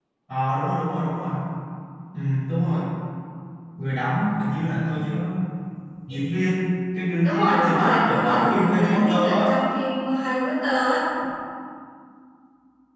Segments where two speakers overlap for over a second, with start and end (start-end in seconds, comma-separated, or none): 7.2-9.5